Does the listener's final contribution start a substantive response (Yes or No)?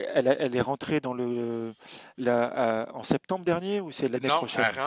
Yes